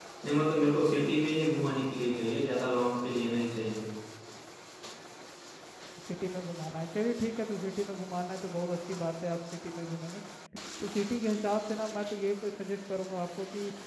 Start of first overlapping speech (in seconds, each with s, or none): none